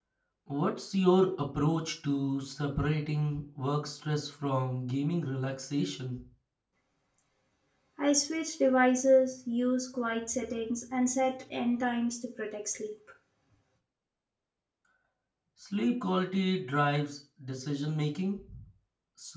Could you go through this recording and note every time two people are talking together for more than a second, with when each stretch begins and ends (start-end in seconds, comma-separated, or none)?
none